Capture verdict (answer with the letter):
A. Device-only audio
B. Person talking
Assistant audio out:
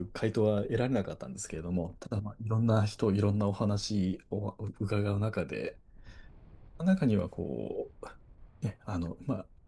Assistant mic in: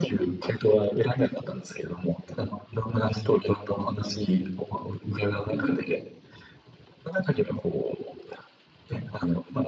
B